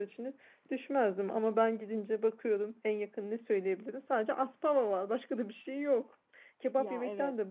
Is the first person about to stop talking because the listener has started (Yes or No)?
No